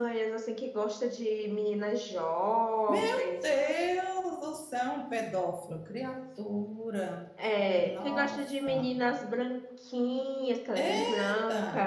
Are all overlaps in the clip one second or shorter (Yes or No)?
No